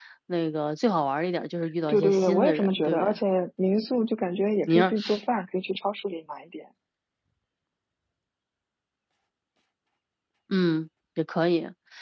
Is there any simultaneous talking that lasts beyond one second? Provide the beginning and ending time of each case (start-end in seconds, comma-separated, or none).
1.9-3.1